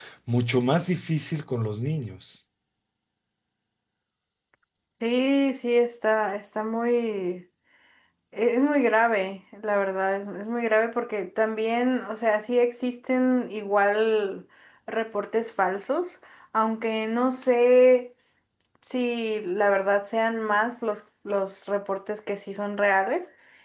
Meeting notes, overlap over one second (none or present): none